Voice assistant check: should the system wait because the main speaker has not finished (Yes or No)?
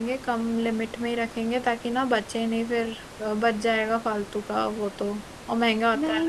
No